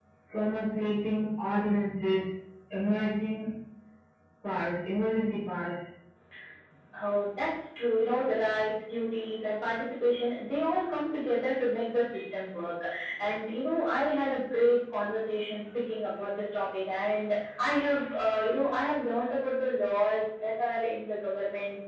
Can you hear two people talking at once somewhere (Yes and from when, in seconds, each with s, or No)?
No